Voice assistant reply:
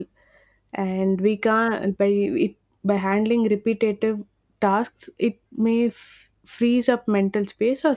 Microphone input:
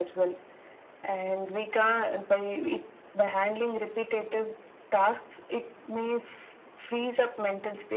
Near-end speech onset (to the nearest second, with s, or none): none